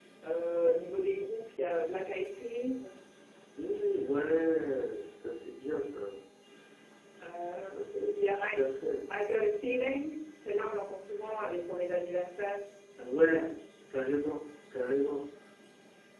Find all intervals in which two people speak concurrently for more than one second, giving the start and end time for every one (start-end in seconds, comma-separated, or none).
none